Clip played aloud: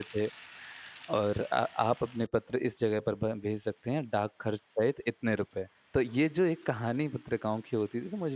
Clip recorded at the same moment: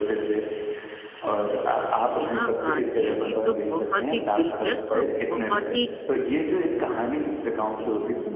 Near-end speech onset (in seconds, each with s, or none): 2.2 s